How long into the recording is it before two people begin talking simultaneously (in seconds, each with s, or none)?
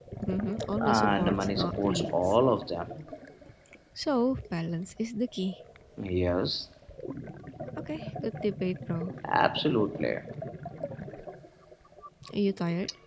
0.8 s